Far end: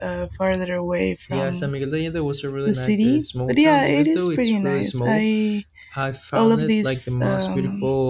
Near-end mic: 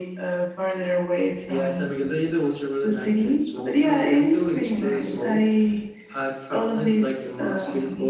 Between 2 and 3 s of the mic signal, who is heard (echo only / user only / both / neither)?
echo only